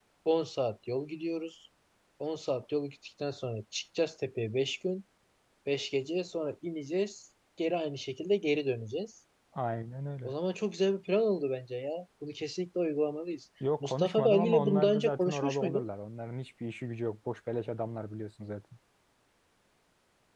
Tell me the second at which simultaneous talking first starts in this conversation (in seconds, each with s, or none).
13.6 s